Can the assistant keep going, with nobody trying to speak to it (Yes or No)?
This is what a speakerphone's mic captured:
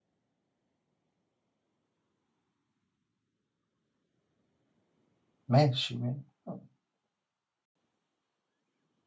No